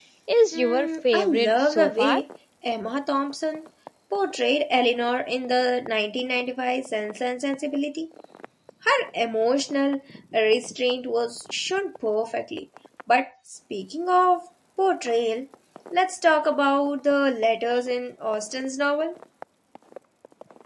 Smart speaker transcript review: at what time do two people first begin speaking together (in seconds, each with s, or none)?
0.5 s